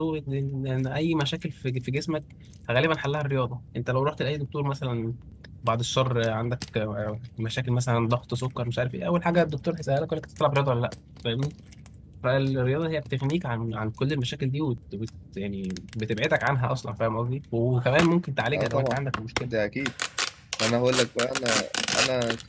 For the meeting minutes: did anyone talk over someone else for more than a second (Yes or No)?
No